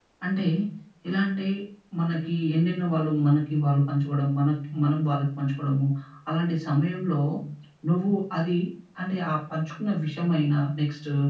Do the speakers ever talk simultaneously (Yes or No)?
No